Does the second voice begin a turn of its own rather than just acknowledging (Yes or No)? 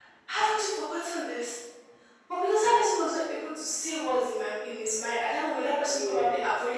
No